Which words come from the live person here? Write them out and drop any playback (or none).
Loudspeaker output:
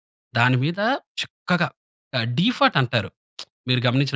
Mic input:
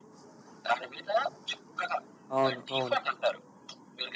అవును. అవును.